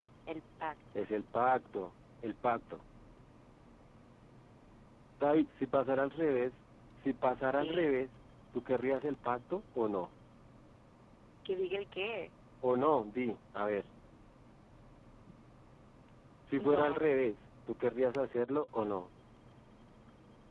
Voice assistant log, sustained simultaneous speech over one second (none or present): none